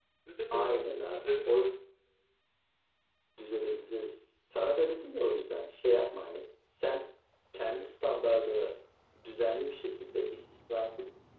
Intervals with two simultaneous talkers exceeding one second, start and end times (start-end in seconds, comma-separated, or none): 0.5-1.8